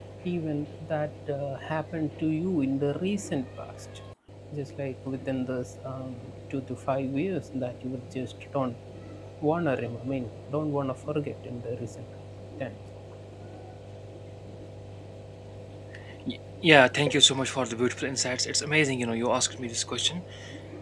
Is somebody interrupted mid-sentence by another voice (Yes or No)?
No